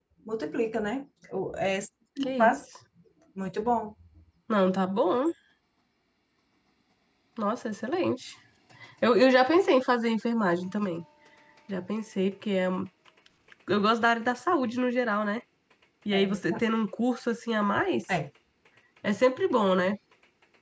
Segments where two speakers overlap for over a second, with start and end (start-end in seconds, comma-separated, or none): none